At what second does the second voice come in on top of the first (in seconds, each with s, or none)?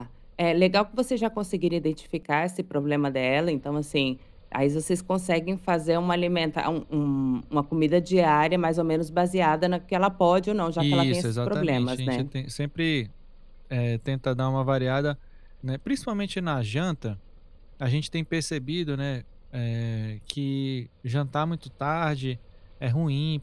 10.8 s